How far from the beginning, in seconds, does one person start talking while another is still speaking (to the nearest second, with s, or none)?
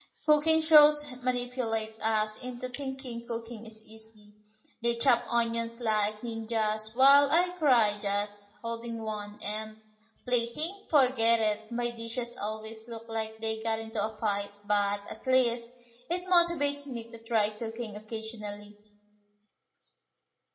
none